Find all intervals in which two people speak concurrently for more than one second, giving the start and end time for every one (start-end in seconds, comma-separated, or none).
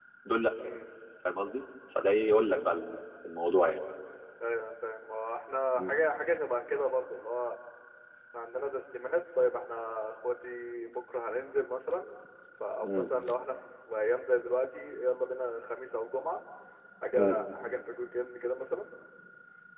none